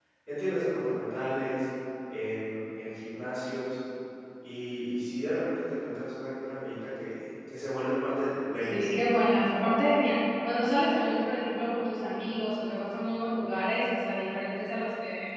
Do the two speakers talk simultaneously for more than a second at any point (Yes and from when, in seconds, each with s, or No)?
No